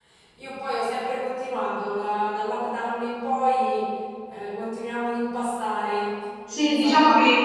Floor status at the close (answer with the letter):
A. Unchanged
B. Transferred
B